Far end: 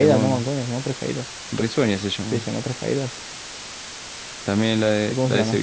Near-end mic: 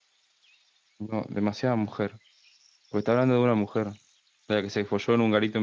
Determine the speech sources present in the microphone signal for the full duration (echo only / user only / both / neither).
user only